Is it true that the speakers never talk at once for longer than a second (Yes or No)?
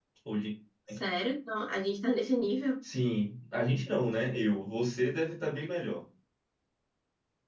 Yes